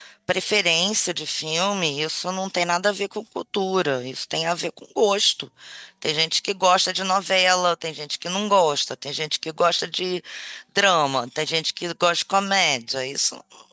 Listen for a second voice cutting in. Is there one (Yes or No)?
No